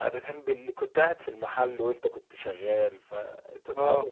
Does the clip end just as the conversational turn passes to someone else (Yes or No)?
No